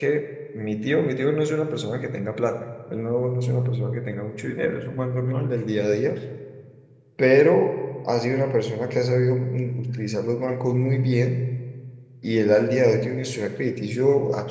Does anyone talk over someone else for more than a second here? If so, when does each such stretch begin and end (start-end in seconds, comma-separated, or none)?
none